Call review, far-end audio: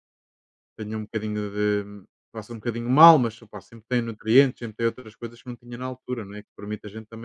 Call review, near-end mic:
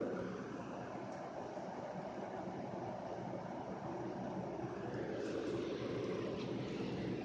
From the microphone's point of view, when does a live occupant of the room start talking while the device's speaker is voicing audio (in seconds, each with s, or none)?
none